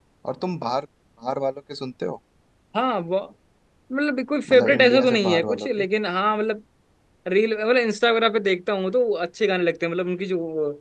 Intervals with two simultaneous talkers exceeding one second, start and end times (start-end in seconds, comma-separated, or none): 4.5-5.8